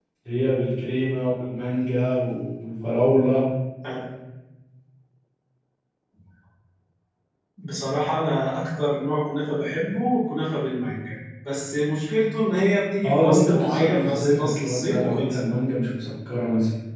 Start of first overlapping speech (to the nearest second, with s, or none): 13 s